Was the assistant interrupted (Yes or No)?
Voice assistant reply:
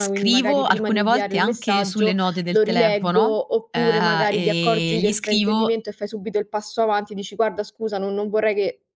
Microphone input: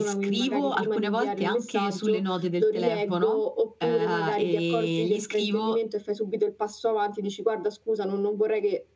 No